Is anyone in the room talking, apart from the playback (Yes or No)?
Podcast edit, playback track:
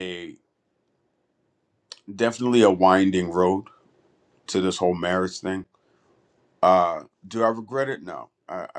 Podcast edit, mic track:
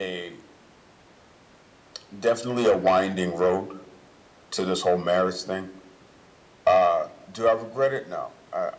No